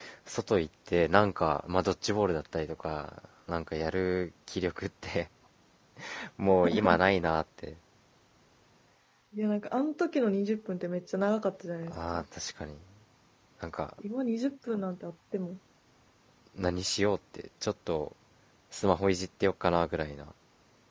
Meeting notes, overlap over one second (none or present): none